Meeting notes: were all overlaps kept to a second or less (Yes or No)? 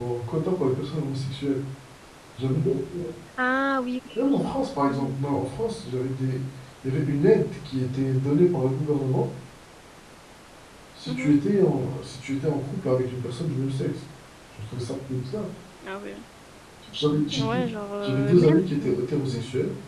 No